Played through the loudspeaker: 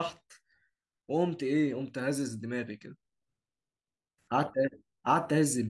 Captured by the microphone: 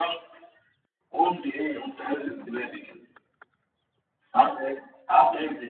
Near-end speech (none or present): none